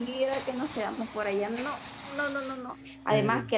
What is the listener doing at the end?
listening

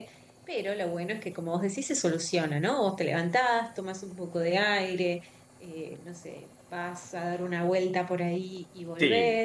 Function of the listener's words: listening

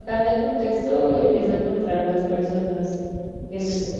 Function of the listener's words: taking over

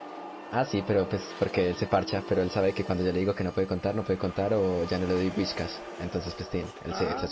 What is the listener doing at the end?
taking over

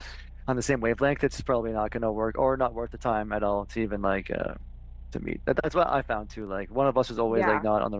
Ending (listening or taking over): listening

